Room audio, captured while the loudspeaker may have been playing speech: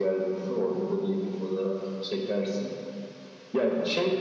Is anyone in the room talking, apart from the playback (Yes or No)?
No